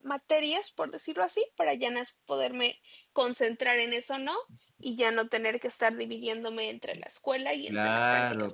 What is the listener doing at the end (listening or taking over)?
taking over